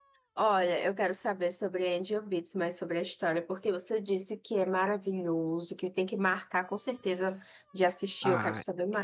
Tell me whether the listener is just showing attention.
No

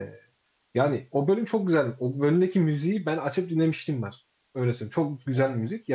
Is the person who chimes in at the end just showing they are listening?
Yes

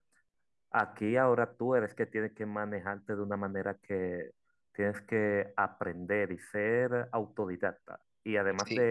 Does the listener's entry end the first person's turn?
No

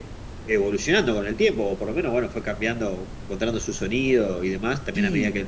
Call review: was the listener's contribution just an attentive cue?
Yes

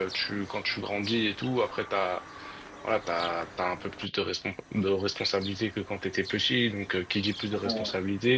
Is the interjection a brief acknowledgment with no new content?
Yes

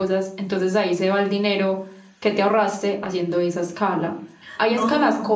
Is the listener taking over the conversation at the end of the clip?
No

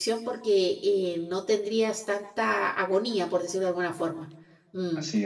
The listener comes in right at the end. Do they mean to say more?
No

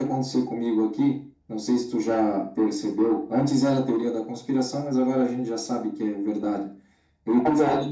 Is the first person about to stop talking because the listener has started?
No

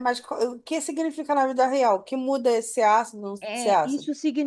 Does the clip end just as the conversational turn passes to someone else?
Yes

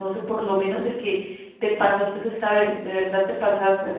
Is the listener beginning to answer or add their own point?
Yes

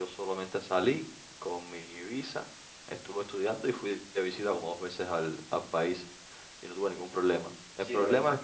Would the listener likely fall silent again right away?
No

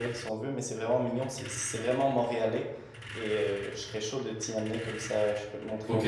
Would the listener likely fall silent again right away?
No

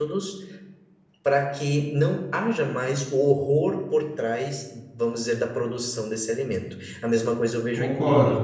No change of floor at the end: Yes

